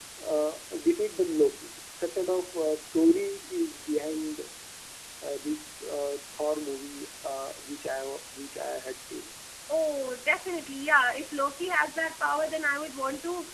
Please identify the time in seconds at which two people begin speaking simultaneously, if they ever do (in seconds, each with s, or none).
none